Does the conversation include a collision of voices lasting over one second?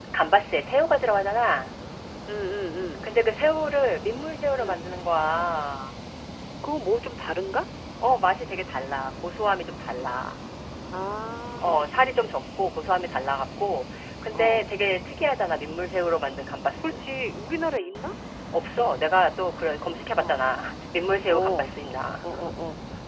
No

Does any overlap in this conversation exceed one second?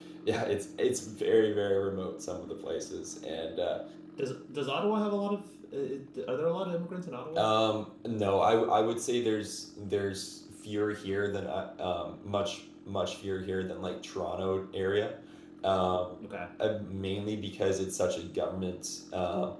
No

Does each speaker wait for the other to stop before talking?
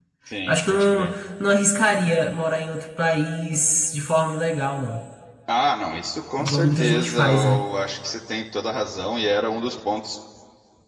No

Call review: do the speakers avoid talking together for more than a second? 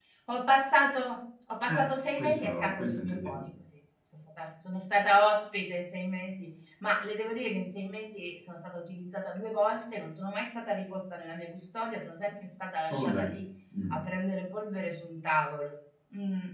No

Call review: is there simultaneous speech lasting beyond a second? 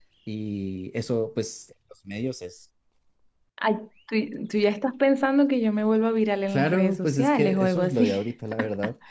Yes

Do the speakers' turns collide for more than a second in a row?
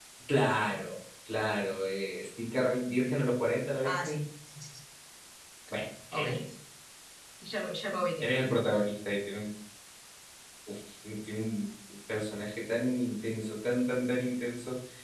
No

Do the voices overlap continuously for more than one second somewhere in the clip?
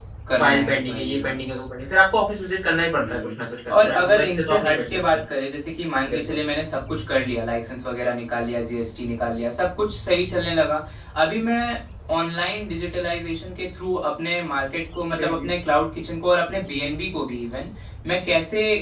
Yes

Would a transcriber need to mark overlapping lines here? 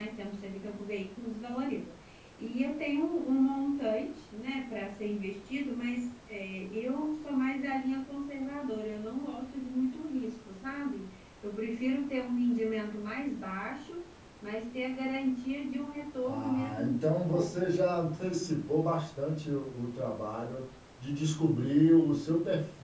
Yes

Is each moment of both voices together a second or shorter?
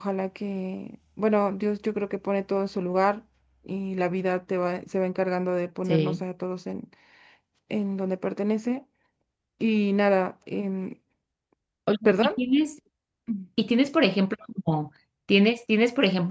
Yes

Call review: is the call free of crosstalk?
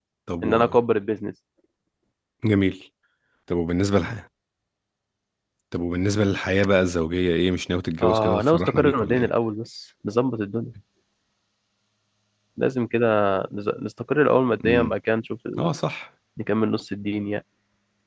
No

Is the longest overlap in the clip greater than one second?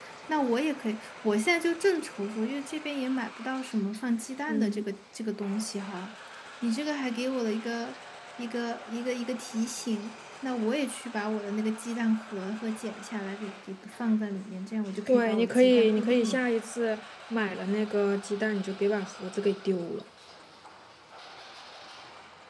Yes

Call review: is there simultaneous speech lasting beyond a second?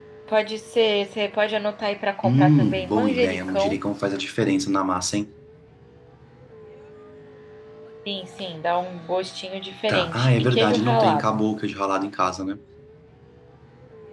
Yes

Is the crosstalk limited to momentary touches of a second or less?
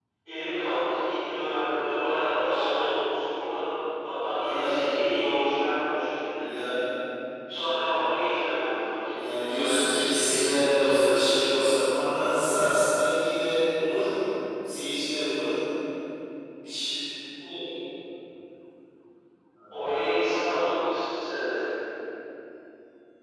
No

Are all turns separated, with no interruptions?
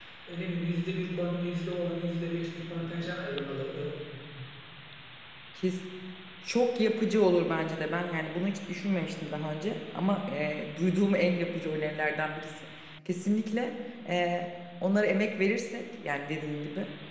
Yes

